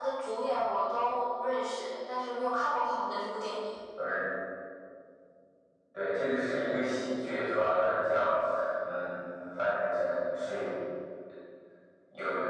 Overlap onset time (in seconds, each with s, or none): none